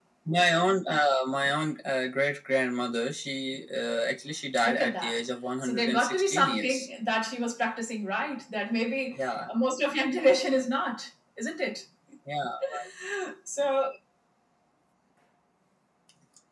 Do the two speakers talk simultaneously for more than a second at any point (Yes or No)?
Yes